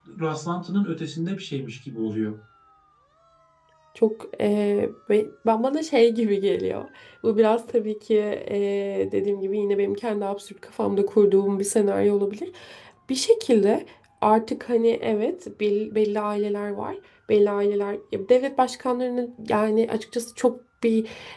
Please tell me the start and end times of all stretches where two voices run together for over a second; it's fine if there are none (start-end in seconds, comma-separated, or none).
none